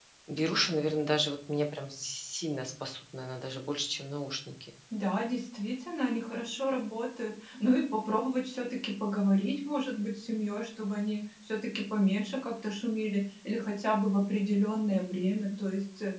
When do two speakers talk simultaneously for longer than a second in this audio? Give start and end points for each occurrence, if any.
none

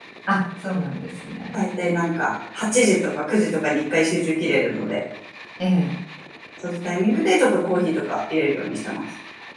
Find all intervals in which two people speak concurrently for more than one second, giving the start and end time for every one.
none

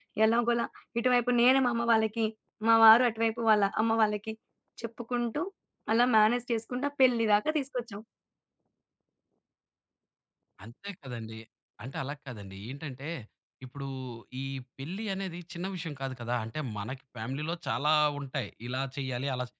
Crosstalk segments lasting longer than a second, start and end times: none

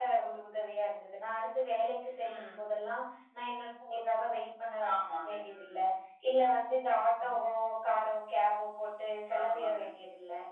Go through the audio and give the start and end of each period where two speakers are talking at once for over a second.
none

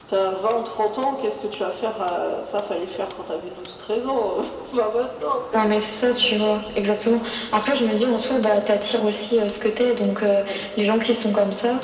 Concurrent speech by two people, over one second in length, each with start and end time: none

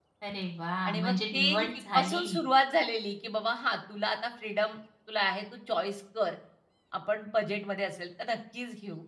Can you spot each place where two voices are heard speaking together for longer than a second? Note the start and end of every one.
0.8-2.2

